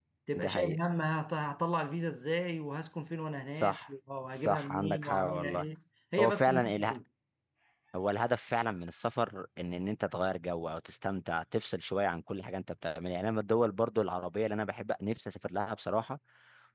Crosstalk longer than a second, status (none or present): present